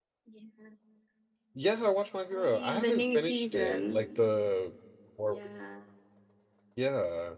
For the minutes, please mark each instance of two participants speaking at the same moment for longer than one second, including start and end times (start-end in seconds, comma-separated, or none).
2.3-4.0